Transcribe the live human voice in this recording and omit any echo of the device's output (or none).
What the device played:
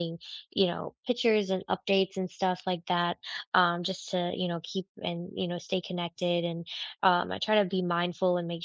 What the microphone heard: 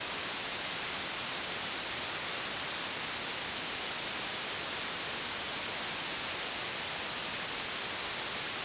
none